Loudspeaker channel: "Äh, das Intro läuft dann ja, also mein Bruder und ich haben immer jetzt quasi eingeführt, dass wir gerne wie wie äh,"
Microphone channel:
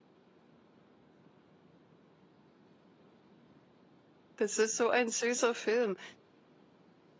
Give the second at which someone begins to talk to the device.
4 s

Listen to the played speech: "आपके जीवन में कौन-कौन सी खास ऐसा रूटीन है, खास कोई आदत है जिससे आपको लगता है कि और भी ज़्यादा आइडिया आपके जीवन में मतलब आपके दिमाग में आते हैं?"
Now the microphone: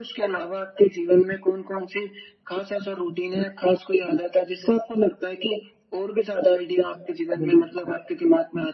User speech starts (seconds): 7 s

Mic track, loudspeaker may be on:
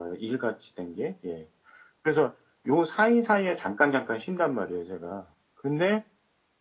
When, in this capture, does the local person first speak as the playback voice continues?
none

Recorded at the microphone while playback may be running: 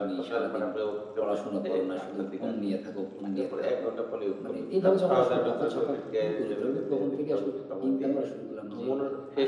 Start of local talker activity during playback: none

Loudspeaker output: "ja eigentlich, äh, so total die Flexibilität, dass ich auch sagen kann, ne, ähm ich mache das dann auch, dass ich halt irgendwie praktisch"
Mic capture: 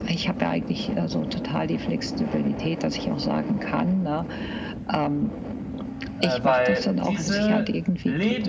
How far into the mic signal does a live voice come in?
6 s

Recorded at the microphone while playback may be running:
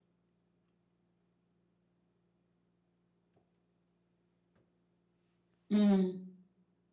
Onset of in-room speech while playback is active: 6 s

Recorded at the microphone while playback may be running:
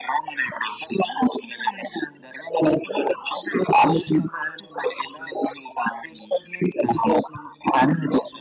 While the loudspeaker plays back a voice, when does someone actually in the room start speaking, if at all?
none

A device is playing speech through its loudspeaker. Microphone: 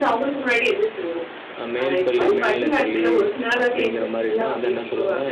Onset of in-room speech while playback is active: 2 s

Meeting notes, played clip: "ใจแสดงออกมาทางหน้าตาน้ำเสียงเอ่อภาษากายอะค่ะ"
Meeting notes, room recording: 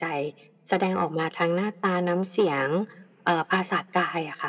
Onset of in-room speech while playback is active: none

